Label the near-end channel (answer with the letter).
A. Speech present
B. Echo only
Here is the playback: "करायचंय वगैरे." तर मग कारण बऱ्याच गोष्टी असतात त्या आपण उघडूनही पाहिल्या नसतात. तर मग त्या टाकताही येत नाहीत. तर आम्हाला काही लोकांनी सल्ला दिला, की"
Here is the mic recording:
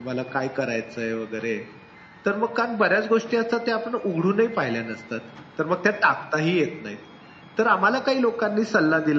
B